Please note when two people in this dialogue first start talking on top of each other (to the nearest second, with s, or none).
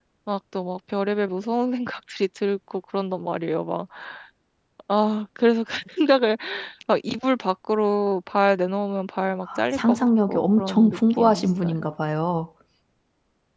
9 s